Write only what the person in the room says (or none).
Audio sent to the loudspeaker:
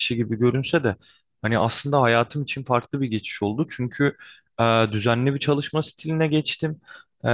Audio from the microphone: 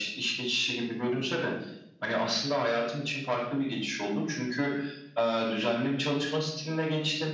none